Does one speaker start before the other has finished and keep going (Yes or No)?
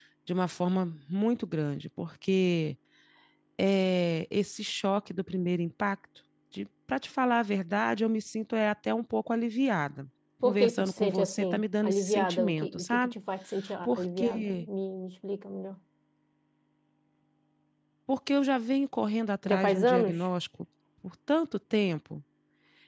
Yes